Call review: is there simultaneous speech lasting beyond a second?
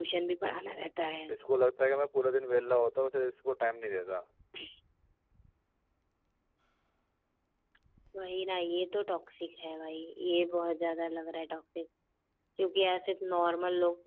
No

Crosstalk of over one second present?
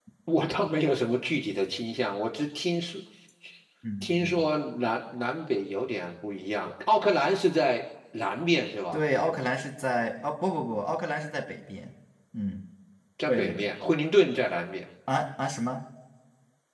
No

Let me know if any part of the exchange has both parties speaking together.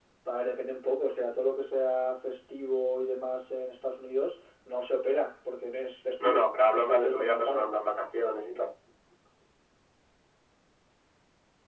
Yes, from 6.2 s

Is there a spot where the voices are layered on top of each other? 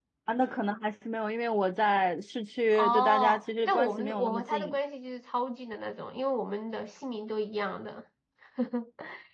Yes, from 2.7 s

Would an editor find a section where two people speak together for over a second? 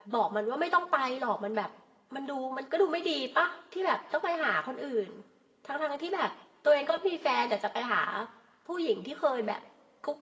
No

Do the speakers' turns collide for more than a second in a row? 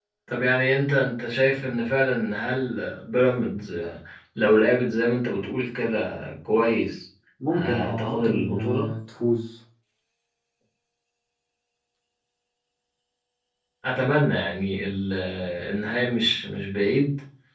Yes, from 7.5 s

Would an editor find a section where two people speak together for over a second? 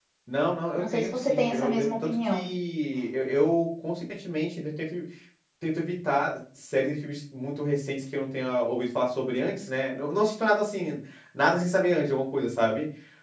Yes, from 0.8 s

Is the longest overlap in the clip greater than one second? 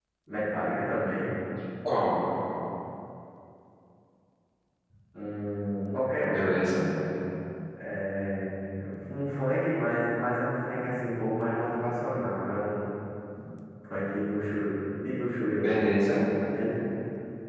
No

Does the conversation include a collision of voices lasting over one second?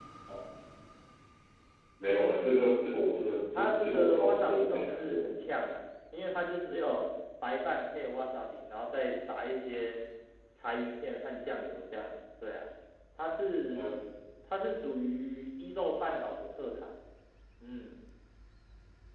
Yes, from 3.6 s

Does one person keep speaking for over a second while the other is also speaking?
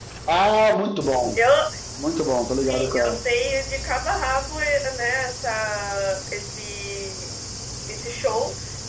No

